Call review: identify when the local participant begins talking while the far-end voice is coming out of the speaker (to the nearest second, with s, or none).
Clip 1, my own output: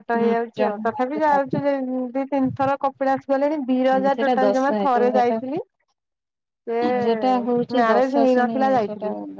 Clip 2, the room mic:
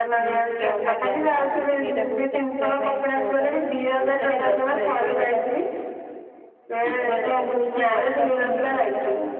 1 s